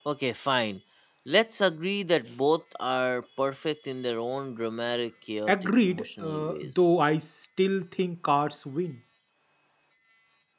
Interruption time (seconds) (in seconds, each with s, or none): 5.5 s